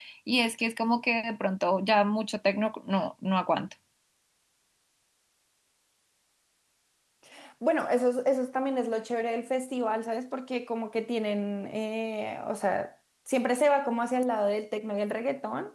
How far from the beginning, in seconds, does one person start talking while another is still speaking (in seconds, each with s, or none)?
none